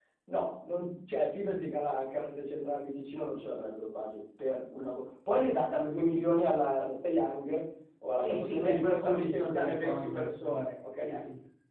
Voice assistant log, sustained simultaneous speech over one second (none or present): present